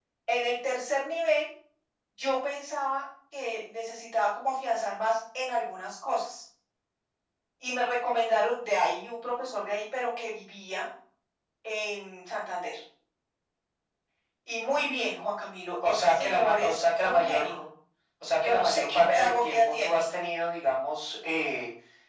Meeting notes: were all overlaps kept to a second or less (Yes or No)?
No